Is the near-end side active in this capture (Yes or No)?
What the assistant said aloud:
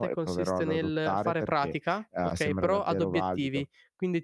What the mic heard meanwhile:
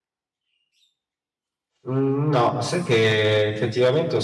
Yes